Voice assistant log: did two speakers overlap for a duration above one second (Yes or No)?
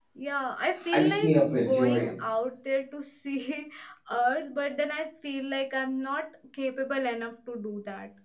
Yes